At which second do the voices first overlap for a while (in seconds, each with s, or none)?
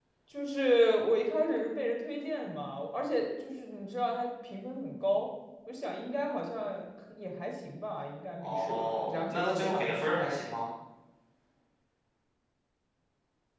8.4 s